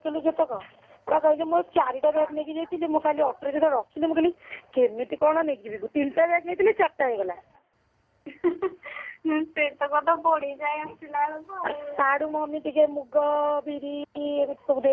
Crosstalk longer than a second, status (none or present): none